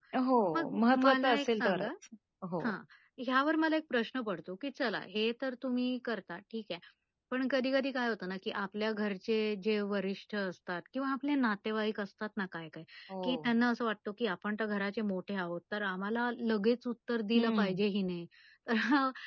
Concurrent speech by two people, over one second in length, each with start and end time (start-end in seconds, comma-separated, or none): 0.5-1.9